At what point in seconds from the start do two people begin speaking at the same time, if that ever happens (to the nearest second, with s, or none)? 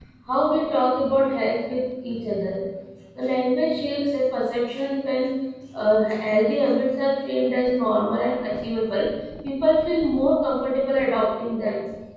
none